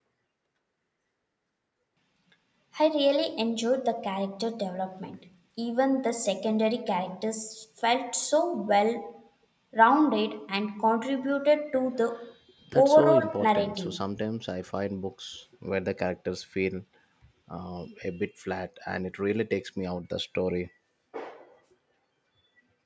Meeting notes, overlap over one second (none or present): present